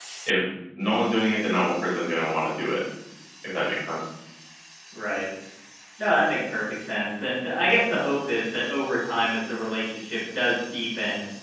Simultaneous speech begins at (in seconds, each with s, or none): none